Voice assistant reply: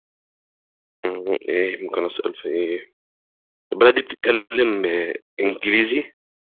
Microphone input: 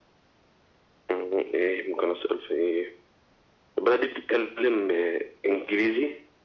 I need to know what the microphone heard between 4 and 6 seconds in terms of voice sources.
echo only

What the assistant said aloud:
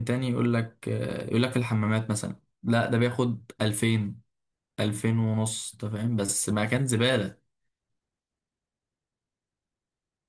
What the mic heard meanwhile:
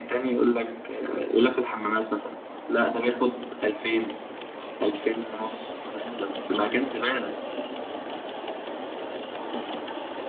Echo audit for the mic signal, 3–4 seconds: echo only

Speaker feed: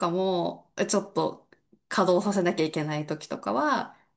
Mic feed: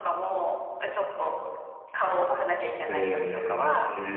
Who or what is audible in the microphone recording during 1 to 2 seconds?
echo only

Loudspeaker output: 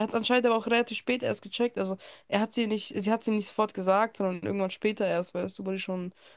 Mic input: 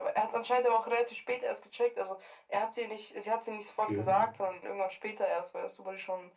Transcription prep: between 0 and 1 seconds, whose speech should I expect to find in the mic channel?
echo only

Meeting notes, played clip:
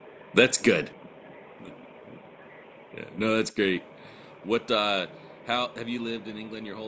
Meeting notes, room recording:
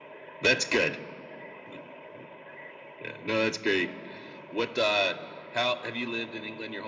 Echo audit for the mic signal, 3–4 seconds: echo only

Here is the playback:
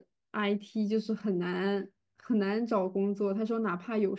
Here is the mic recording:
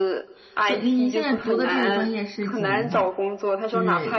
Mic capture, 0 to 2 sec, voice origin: both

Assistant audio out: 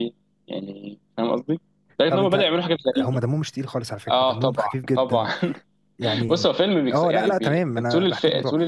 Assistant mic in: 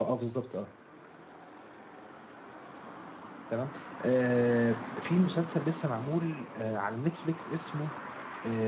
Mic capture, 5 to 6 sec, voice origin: user only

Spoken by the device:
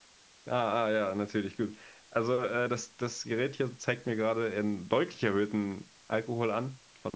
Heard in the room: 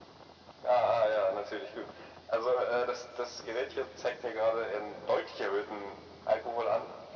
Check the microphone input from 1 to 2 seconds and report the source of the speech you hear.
echo only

